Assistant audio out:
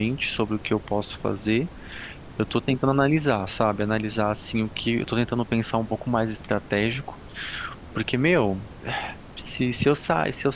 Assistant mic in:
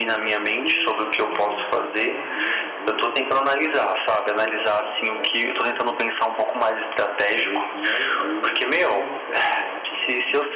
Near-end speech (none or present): present